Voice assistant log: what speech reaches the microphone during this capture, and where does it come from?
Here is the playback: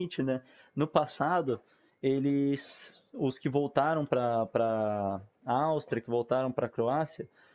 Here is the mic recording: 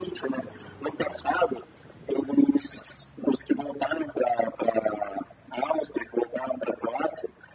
echo only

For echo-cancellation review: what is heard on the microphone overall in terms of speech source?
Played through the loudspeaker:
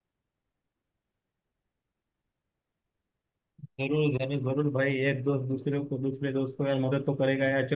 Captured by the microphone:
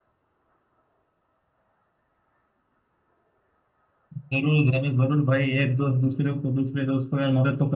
echo only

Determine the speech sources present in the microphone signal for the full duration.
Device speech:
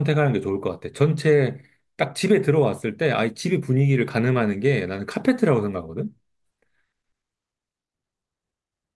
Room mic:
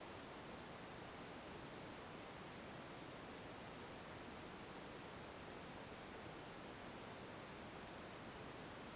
neither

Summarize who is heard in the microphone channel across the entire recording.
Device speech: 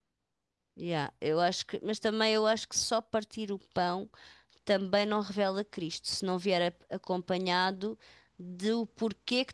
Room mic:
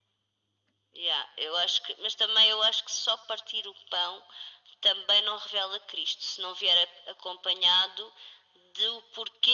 echo only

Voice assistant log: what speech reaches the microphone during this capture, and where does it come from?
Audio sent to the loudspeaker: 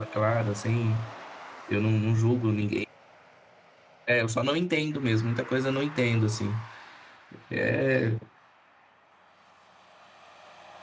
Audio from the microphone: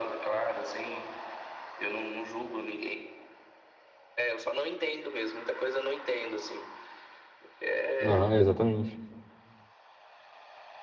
both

